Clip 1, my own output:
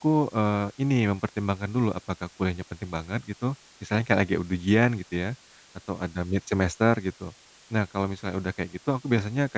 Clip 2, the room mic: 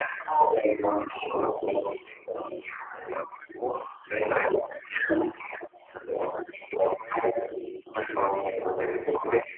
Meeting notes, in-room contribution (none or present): none